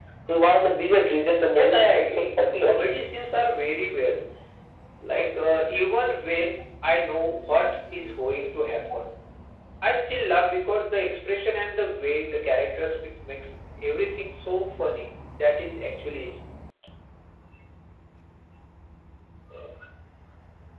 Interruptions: present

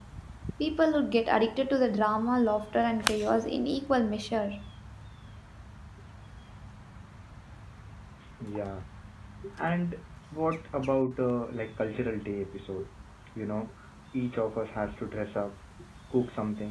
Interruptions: none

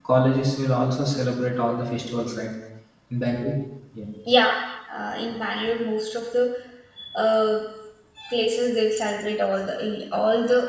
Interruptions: none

